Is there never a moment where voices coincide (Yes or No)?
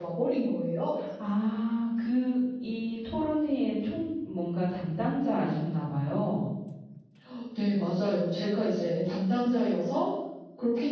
Yes